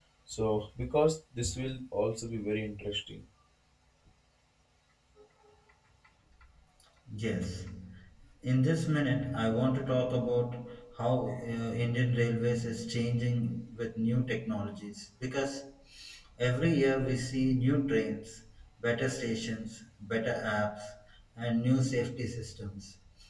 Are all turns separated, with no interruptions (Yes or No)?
Yes